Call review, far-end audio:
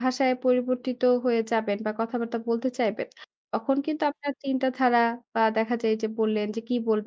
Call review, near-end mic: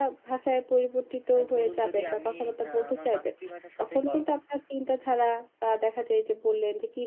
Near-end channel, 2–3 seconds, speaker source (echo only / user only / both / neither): both